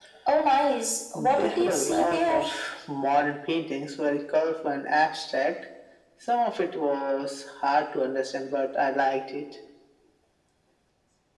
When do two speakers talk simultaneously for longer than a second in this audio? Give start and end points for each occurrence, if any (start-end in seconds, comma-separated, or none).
1.1-2.4